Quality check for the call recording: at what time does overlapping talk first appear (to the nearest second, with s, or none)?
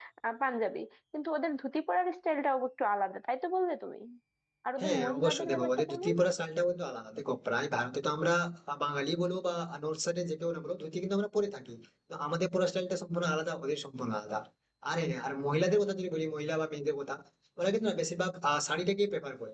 5 s